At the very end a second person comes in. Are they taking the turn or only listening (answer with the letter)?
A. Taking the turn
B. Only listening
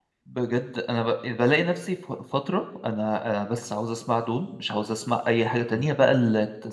B